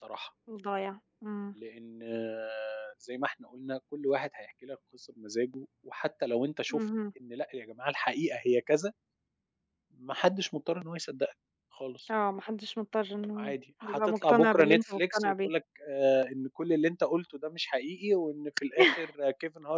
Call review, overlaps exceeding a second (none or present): present